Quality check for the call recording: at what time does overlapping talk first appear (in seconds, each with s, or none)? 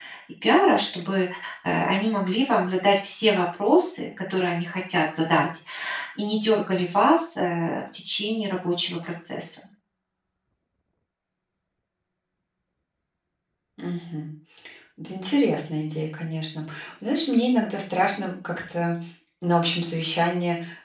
none